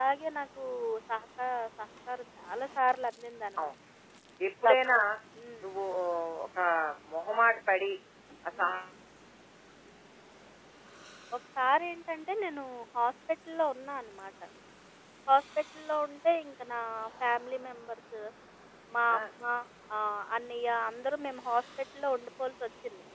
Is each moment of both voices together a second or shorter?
Yes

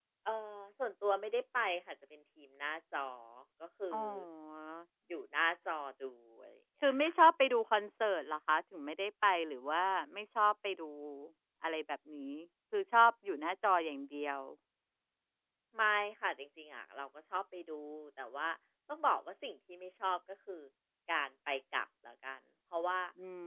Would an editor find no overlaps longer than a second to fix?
Yes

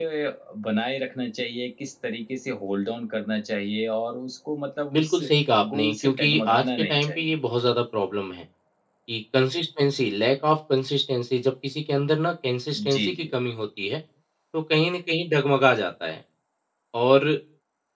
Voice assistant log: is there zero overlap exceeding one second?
No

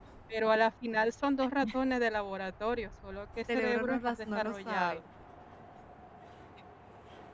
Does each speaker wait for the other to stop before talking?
No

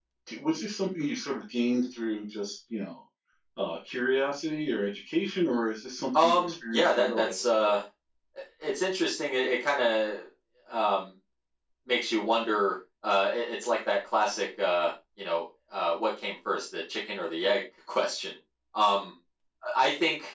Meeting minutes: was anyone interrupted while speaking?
Yes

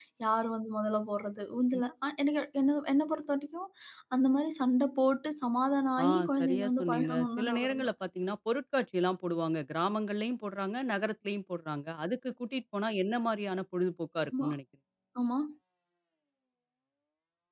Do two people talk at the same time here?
Yes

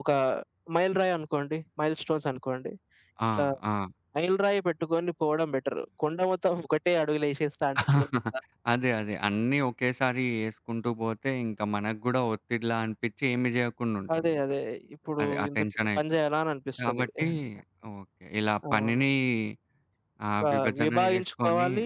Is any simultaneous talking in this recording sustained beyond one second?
Yes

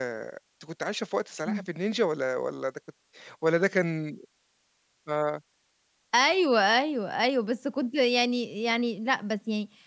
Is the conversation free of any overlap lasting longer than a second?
Yes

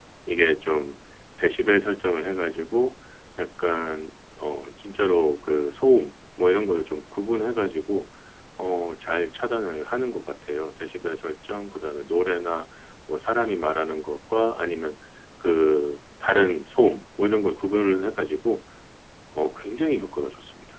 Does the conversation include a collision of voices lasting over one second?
No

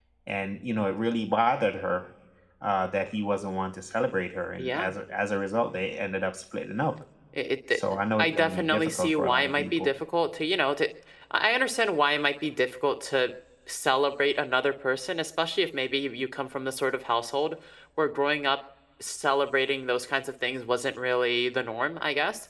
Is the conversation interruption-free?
No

